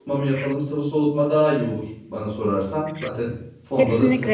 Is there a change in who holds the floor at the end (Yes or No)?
Yes